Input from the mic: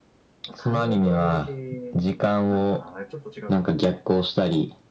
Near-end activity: present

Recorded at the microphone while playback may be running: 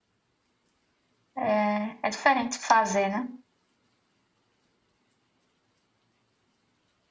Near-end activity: present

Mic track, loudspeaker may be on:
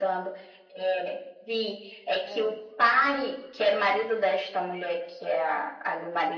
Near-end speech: present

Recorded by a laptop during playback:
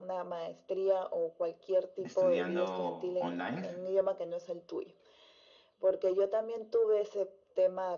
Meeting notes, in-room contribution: present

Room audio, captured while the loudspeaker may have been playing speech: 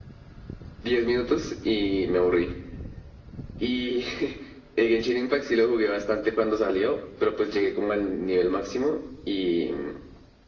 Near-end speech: none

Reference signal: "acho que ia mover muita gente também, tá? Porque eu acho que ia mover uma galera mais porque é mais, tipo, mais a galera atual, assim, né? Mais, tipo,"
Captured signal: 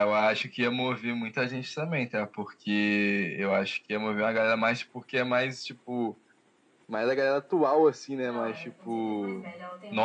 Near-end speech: present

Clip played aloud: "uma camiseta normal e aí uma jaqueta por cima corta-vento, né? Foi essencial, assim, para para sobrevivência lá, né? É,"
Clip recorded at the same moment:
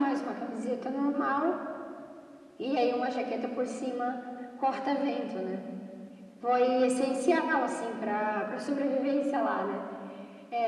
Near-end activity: none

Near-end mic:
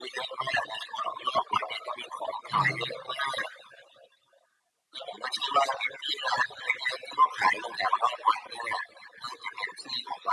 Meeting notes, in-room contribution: present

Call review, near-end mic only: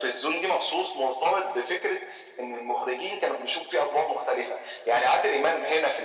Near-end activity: none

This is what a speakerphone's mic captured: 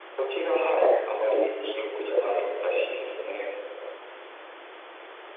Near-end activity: none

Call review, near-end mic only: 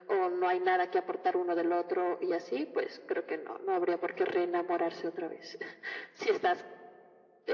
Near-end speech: none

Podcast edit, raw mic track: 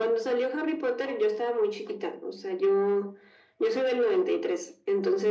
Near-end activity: none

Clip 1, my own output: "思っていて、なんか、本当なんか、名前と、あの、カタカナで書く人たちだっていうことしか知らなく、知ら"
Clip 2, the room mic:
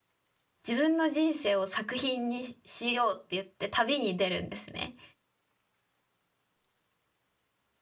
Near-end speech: present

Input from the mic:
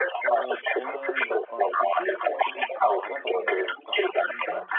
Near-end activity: present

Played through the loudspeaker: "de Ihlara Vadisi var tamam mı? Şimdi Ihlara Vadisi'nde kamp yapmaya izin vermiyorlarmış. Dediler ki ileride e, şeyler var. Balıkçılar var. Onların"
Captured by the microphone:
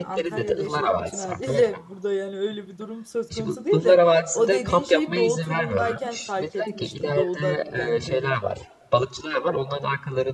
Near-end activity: present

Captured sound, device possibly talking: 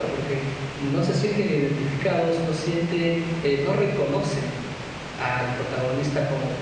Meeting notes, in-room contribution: present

